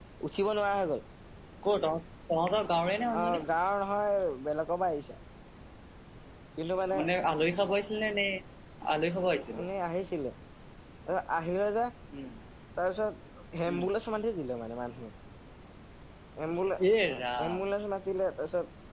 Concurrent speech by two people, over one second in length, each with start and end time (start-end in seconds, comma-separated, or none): none